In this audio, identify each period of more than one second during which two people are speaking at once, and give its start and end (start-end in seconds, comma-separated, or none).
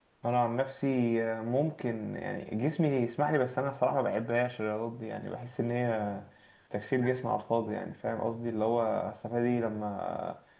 none